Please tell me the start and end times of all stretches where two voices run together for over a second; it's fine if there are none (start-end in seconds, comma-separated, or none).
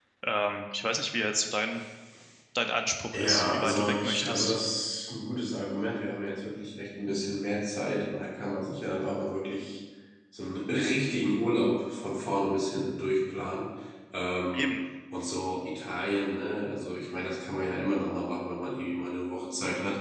3.1-4.5